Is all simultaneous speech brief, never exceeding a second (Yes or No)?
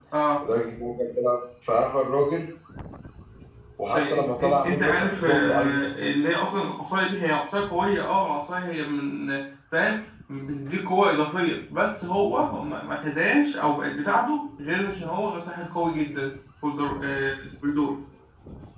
No